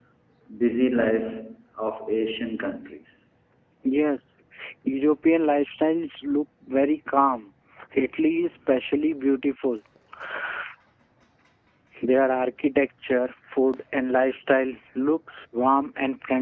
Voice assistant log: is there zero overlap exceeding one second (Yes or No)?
Yes